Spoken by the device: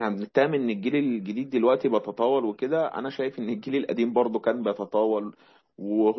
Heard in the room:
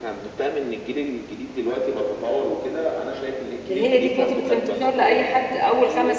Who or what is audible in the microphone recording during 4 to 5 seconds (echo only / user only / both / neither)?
both